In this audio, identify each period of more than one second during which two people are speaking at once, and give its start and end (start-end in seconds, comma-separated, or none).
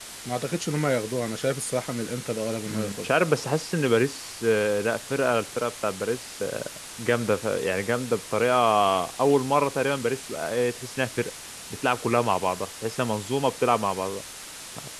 none